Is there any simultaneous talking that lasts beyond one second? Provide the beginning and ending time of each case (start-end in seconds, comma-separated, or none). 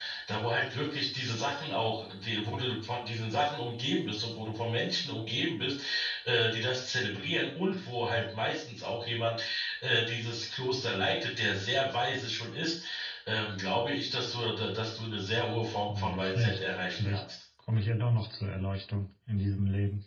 15.9-17.2